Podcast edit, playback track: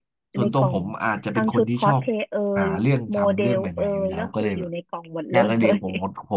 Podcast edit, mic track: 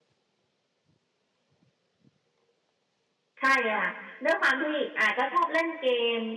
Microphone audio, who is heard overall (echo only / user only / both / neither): user only